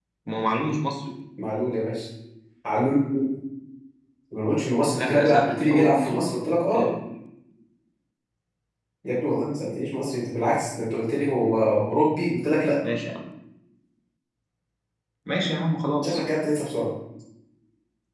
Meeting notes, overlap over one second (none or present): present